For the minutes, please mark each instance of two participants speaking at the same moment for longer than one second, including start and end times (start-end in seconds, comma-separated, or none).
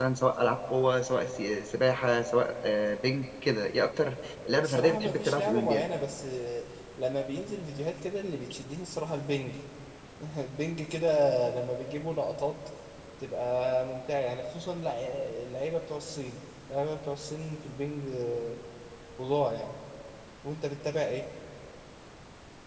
4.5-5.9